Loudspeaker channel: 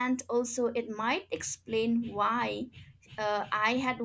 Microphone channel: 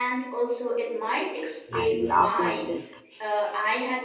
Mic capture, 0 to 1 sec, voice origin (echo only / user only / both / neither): echo only